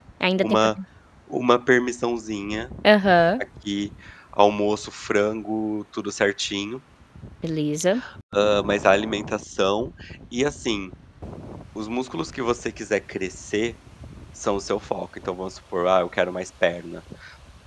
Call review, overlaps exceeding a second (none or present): none